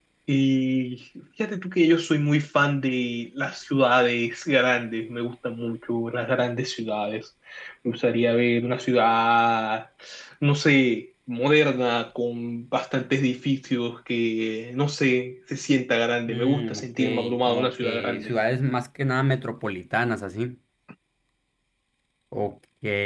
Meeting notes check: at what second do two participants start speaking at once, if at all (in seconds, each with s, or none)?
16.3 s